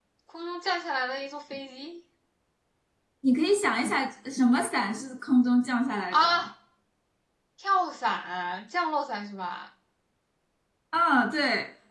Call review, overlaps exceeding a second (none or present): none